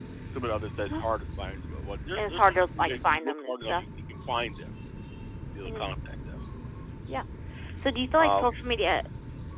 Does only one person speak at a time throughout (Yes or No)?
No